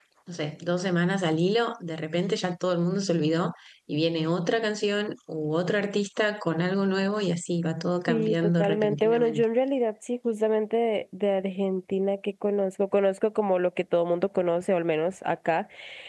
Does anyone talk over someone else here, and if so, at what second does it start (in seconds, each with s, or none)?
8.1 s